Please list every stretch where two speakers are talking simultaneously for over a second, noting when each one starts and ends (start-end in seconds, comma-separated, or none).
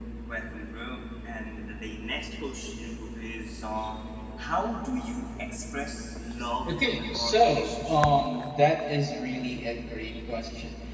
6.7-8.0